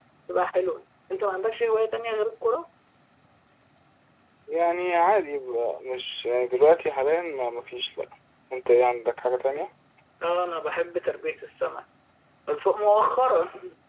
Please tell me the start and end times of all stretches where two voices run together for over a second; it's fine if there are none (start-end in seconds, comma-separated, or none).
none